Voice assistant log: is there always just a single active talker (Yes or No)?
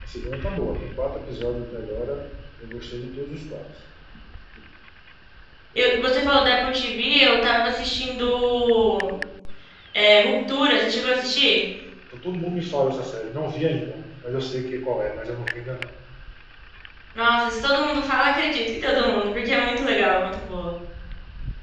Yes